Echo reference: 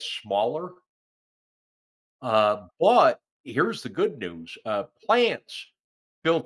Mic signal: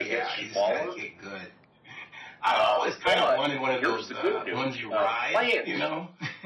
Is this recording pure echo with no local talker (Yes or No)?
No